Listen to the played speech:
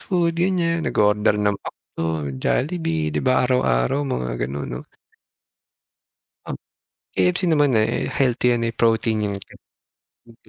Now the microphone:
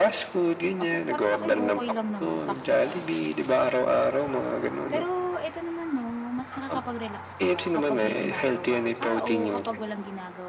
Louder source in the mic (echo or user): echo